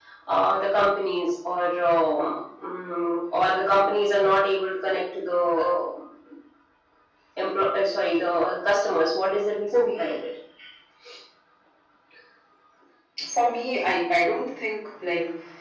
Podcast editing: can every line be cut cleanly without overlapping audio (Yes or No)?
Yes